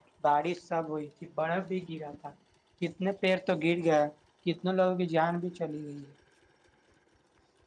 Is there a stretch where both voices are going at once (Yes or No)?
No